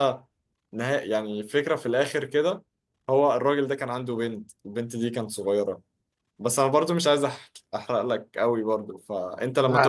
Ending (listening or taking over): listening